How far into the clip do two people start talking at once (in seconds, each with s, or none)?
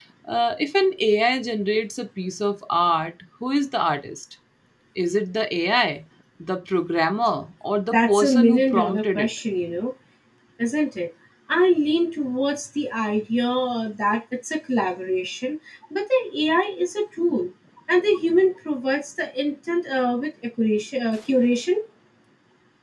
7.9 s